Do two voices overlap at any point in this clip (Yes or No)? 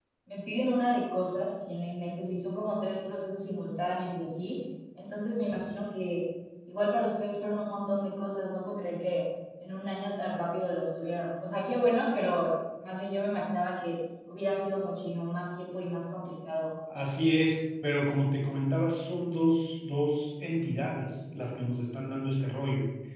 No